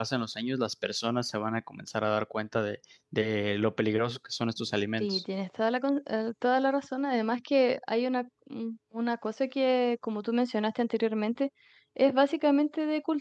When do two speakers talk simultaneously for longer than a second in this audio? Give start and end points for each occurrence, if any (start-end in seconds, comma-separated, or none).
none